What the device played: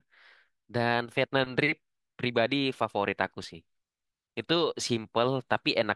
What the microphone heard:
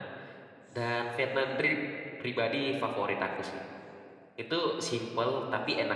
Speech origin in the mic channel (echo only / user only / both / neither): echo only